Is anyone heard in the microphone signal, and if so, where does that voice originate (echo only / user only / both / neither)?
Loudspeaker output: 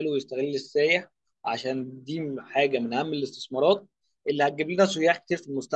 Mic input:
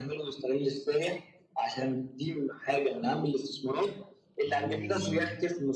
both